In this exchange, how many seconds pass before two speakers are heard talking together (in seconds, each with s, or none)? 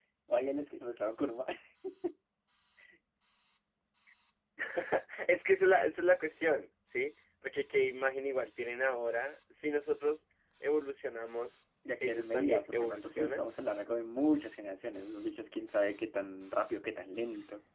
11.8 s